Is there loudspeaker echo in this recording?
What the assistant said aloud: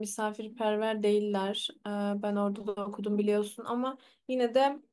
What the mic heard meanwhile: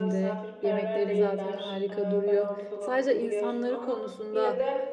Yes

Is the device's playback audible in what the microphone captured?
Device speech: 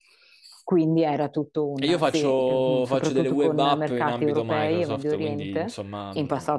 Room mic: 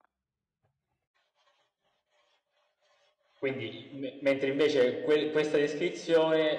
No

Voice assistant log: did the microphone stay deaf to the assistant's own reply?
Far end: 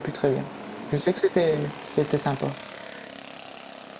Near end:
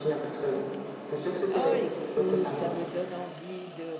No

